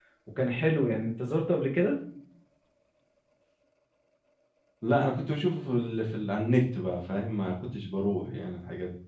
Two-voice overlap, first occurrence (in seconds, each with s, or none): none